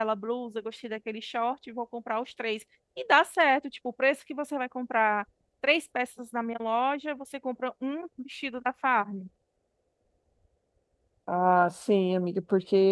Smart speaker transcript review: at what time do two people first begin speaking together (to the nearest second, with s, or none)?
none